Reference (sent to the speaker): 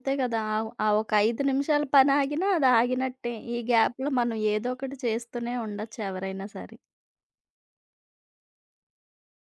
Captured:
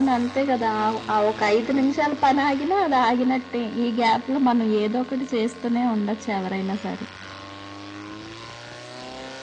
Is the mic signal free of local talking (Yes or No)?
Yes